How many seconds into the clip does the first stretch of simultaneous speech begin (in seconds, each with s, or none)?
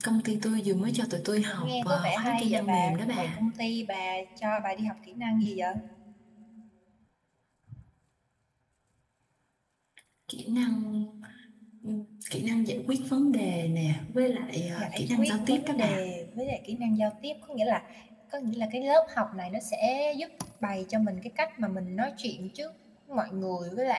1.4 s